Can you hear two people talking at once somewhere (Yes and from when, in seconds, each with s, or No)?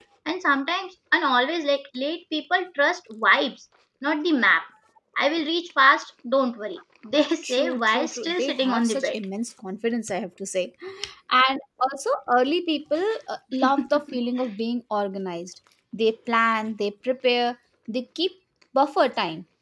Yes, from 7.4 s